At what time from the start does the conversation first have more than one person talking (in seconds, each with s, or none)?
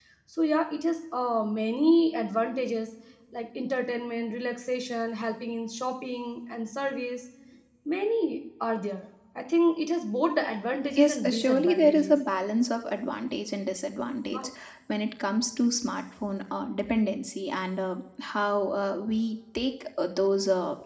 10.9 s